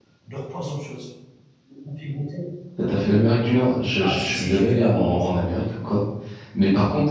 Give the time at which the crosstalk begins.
4.0 s

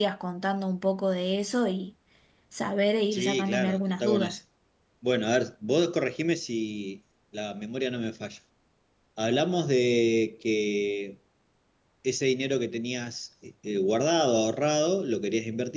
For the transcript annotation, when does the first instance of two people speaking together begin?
3.1 s

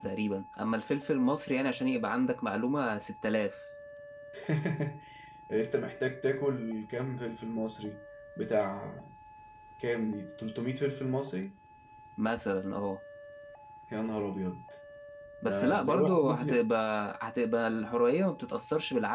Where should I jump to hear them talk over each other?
15.4 s

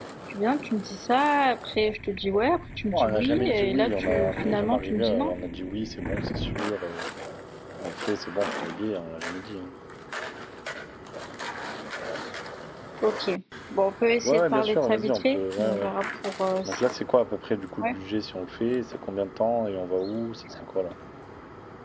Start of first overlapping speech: 2.9 s

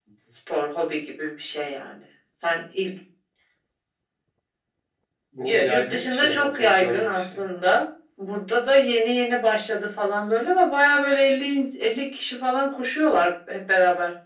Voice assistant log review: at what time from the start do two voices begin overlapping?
5.4 s

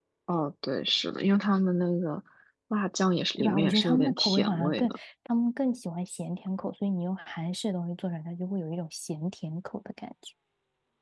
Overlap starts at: 3.4 s

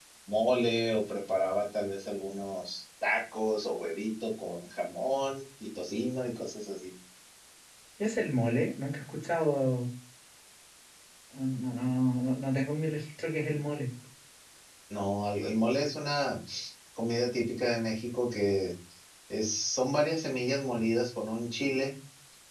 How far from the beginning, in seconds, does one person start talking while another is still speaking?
none

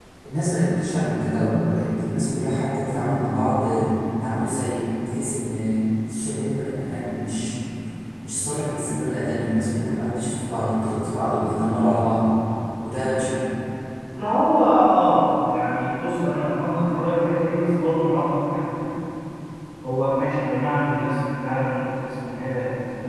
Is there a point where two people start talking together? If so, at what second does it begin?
none

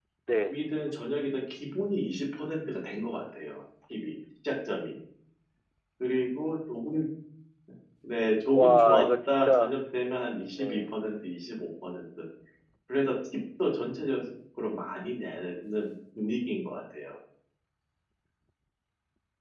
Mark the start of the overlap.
8.5 s

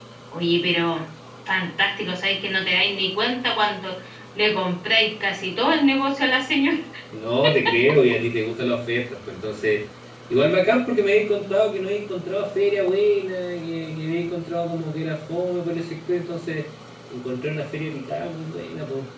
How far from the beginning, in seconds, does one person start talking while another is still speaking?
none

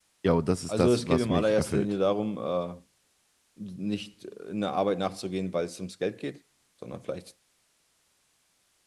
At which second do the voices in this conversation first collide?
0.7 s

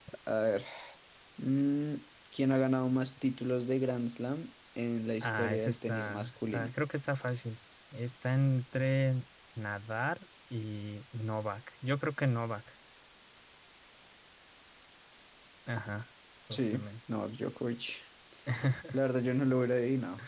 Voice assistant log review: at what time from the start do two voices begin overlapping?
5.2 s

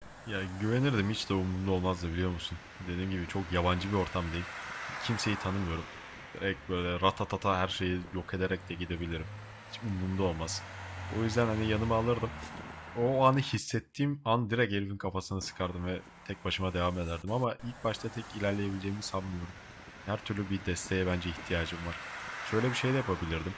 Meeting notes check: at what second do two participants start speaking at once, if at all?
none

